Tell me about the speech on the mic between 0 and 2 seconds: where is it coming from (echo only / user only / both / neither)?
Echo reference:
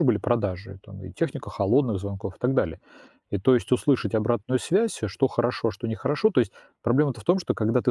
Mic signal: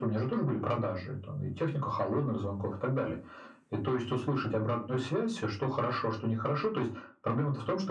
echo only